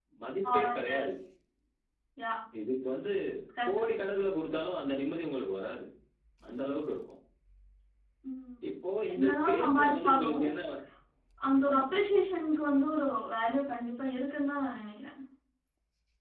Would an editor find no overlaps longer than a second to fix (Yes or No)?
No